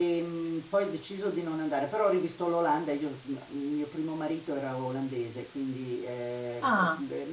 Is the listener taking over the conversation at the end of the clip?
No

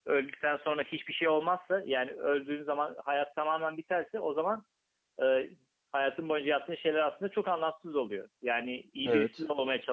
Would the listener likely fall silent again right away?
Yes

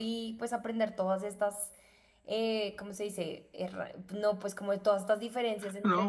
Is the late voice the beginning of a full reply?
Yes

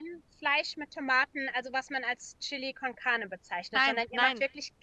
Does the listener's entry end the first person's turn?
No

